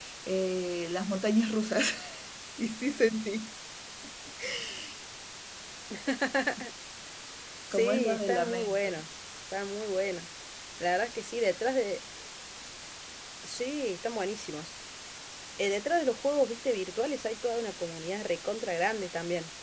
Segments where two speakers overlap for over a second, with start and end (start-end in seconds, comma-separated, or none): 7.7-9.0